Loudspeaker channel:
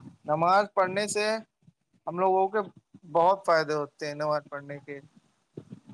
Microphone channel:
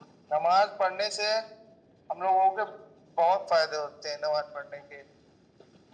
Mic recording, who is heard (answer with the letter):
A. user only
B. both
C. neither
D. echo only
D